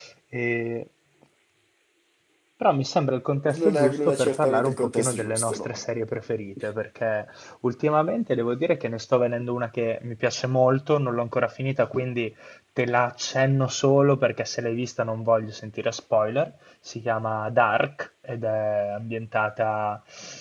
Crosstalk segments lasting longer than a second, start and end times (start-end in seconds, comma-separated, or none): 3.5-5.7